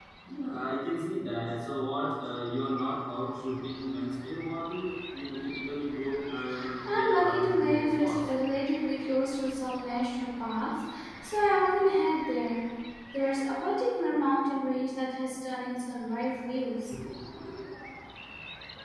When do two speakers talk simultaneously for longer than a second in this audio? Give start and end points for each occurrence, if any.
6.9-8.3

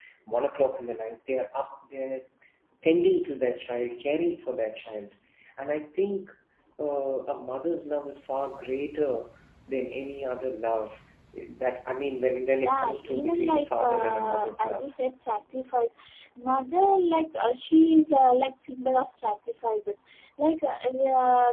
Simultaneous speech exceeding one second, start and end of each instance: 12.6-14.9

